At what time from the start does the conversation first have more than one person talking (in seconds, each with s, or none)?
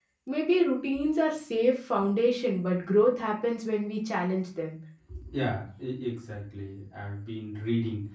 none